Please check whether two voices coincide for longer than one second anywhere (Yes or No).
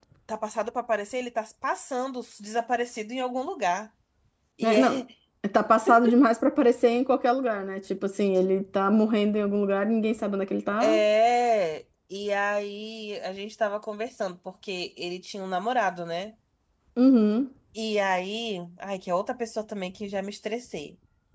No